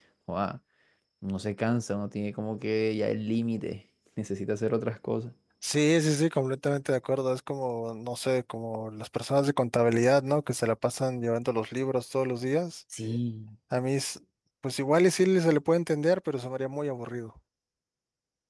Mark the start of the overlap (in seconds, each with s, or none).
none